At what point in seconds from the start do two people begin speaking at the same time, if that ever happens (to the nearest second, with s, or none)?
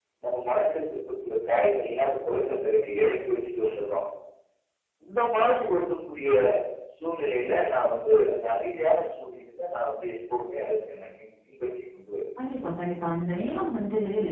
none